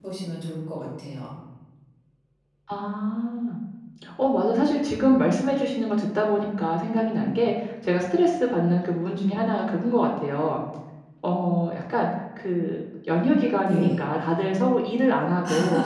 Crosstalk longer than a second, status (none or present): none